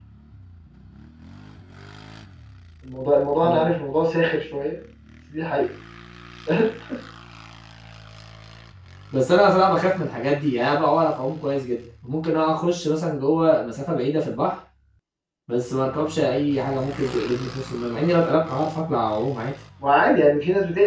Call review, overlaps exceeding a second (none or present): none